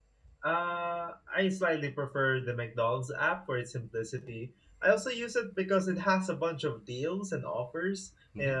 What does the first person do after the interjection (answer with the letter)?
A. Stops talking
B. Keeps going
B